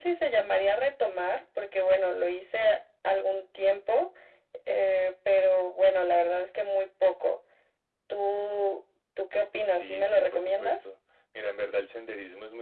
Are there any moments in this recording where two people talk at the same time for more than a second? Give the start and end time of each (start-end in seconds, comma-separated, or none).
9.6-10.9